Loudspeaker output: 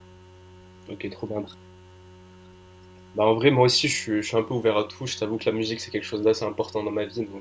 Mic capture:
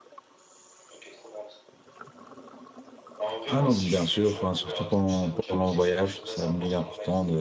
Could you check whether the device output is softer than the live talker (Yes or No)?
Yes